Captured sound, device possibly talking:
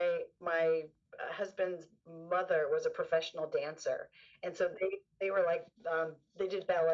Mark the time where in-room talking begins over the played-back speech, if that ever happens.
none

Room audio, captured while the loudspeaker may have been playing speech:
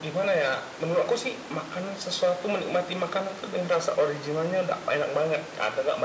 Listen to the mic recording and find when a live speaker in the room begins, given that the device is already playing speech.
none

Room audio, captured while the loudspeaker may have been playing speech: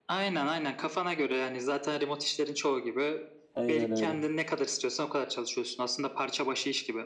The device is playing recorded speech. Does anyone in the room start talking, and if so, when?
3.5 s

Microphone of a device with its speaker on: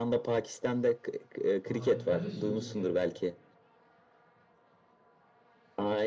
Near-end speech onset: 1.6 s

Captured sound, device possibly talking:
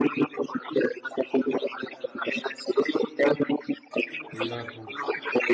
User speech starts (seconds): 4.3 s

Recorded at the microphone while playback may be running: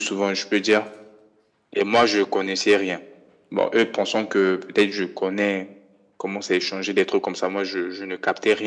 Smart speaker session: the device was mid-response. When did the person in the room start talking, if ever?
none

